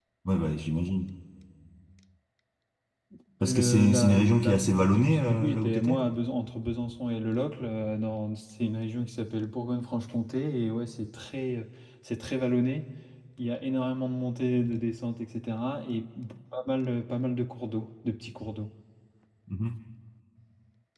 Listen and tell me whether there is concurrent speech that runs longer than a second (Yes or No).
Yes